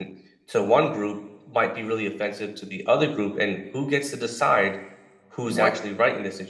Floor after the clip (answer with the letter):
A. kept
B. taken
A